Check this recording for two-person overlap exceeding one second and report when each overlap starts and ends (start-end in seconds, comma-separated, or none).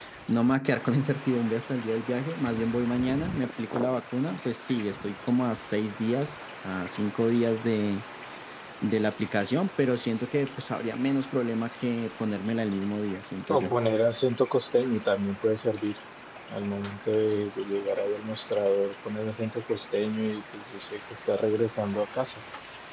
none